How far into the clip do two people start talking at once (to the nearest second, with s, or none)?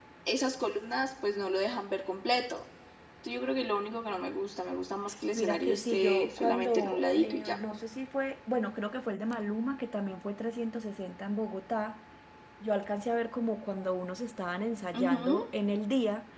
5 s